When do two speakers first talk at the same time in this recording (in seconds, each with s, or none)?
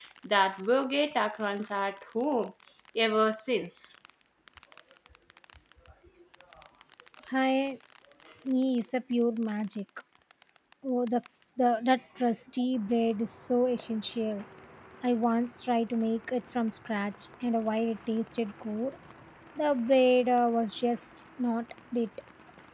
none